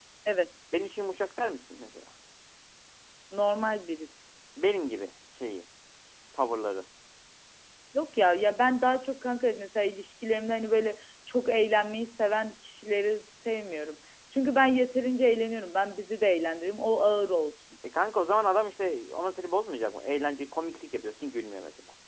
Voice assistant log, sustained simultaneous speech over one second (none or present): none